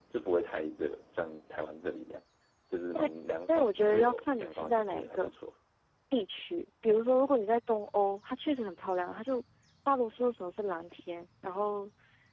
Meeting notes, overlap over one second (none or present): present